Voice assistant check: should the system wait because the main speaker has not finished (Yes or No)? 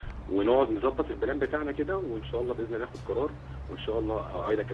No